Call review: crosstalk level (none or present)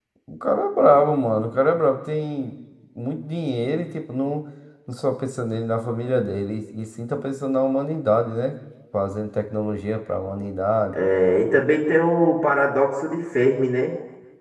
none